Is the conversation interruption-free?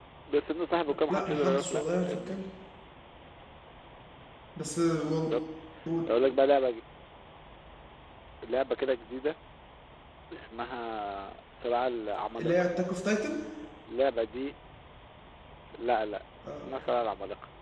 No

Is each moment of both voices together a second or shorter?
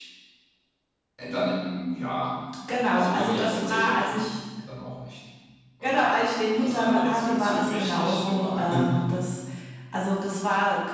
No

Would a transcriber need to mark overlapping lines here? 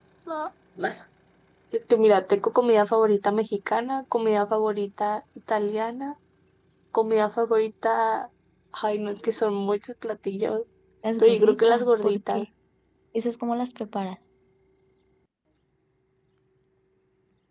Yes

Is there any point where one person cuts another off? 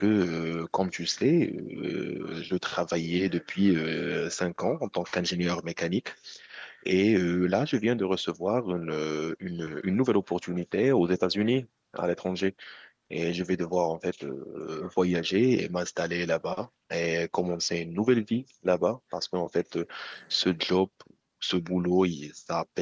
No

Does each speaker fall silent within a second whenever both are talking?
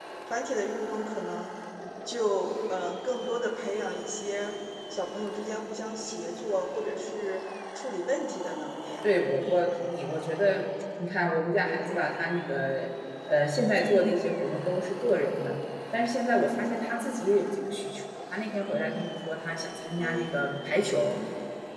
Yes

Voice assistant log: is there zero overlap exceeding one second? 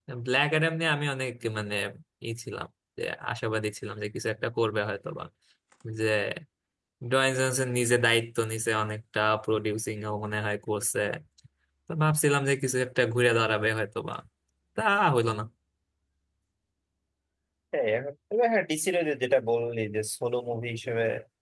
Yes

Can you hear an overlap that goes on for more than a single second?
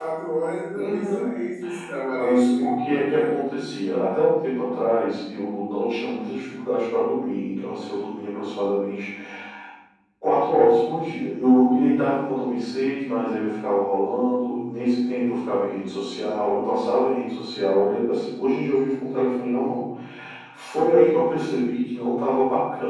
Yes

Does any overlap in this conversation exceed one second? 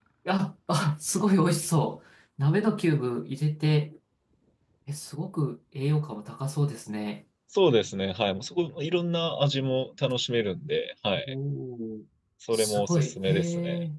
Yes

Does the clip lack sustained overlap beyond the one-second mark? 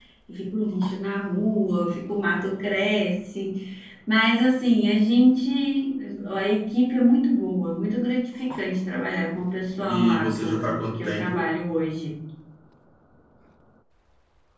No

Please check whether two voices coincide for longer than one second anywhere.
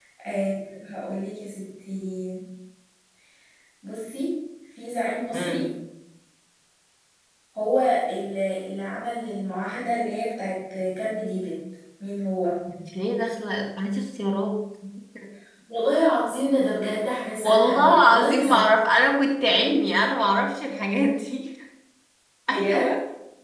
Yes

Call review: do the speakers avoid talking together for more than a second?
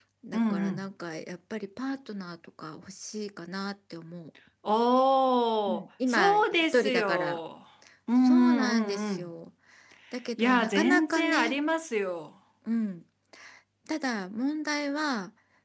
No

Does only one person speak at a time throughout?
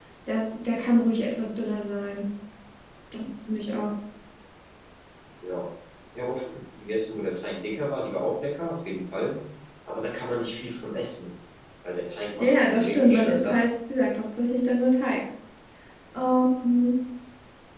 No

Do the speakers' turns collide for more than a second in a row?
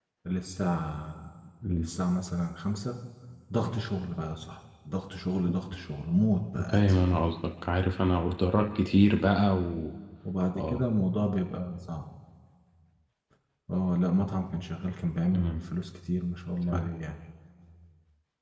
No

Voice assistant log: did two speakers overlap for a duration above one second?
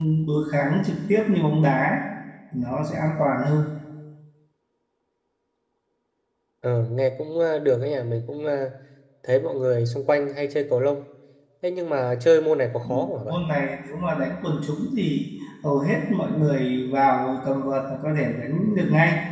No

